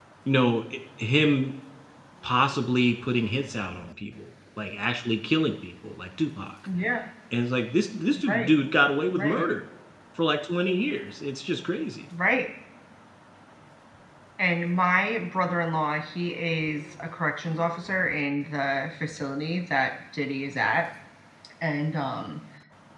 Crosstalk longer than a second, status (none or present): none